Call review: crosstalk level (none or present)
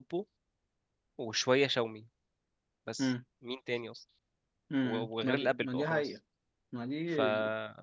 present